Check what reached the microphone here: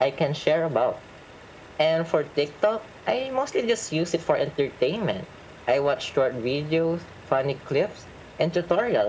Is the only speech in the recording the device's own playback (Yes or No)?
Yes